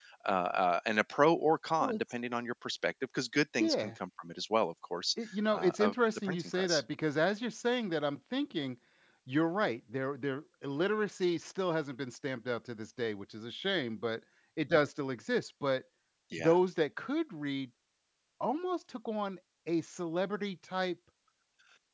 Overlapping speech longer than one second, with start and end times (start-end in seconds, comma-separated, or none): 5.5-6.8